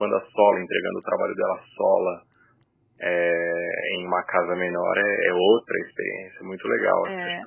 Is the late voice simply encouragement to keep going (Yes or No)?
No